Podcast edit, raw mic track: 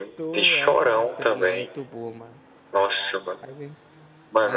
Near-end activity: present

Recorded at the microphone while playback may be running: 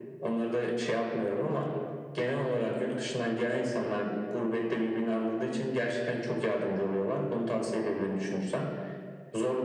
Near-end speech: none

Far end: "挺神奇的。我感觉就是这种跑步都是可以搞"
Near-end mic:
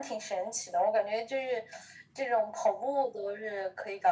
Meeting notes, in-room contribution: none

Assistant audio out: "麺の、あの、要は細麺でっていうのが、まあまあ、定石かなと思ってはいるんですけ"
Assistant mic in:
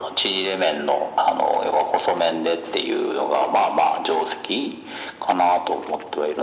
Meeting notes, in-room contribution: none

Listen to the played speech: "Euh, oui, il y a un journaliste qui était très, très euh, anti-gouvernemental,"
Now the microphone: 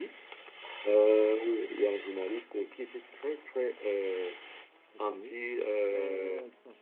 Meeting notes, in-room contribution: present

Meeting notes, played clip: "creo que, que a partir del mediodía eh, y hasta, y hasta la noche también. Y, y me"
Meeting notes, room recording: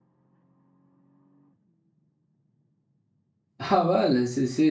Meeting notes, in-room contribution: present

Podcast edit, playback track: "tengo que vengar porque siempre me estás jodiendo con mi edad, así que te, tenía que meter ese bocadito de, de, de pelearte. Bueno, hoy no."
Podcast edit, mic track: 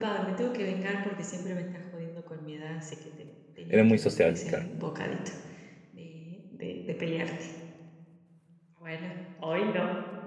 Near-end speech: present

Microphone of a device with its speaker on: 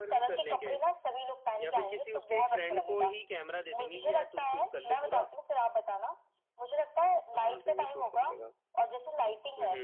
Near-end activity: present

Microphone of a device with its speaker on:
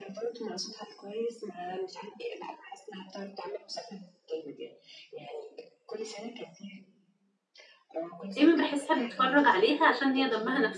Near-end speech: present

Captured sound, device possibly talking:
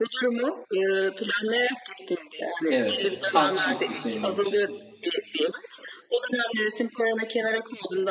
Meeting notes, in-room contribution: present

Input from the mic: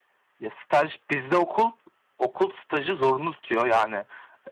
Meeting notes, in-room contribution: none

